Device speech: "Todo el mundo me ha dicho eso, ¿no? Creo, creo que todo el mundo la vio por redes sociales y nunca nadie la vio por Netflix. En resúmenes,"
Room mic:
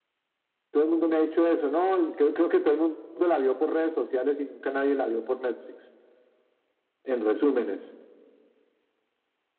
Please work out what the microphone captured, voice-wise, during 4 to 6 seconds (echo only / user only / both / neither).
echo only